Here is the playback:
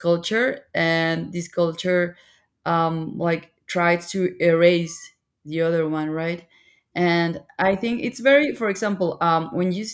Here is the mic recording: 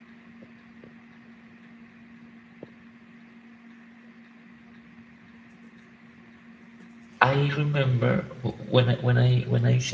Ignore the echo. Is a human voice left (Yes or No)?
Yes